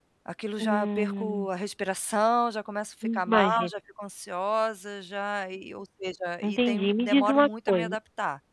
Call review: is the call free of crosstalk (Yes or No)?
No